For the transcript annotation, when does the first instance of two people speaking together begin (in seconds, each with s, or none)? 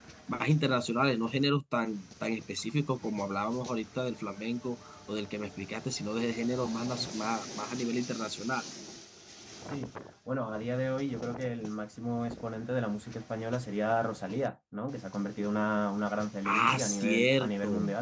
16.4 s